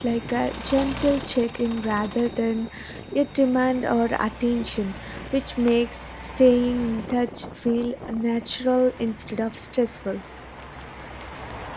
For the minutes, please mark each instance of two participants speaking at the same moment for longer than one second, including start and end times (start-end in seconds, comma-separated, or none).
none